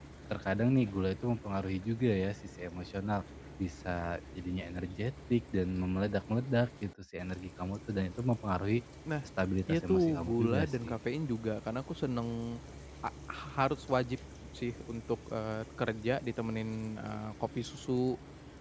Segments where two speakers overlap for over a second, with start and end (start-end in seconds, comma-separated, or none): 9.7-11.0